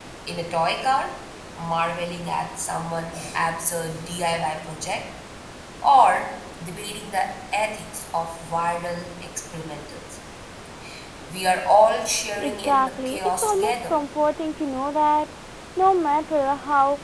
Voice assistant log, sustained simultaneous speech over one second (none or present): present